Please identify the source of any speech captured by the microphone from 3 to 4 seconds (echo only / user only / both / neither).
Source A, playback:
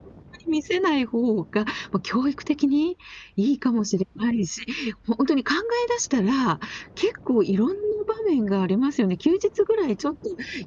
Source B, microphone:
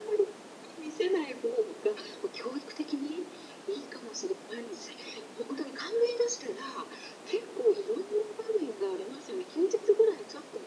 echo only